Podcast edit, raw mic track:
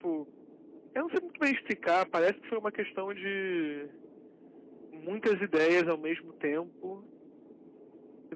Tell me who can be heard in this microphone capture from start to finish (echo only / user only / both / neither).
user only